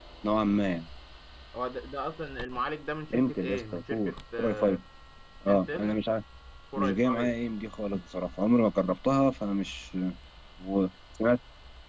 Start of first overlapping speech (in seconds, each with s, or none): 3.1 s